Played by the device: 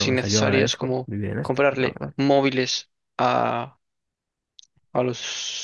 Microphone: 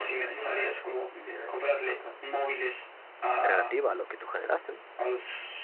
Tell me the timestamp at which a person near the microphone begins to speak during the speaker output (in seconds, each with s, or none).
3.4 s